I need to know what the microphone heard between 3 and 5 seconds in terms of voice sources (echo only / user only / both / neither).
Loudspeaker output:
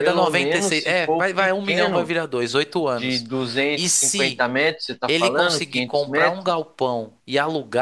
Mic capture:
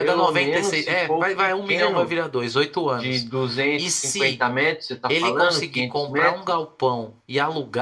echo only